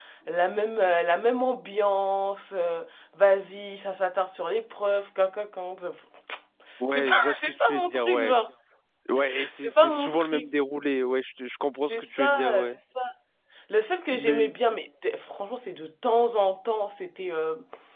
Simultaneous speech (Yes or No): Yes